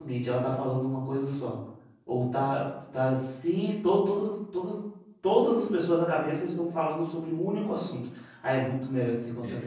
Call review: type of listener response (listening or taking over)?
taking over